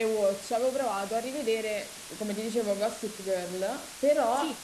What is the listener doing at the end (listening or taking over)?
listening